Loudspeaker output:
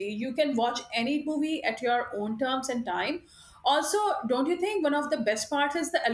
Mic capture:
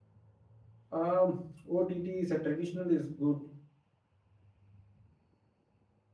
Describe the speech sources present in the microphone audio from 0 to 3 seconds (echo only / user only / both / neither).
user only